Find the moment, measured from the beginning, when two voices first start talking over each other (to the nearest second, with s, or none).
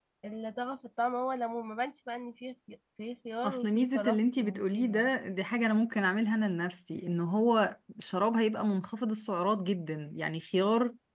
3 s